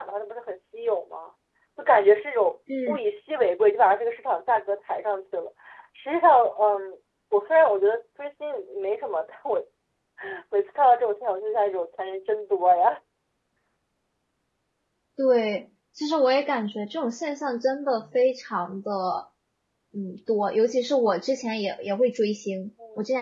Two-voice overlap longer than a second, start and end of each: none

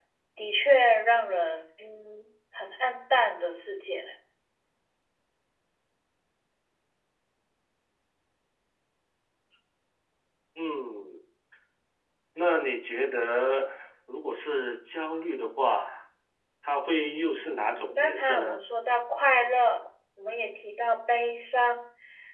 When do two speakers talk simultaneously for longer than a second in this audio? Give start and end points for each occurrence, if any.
17.4-18.6

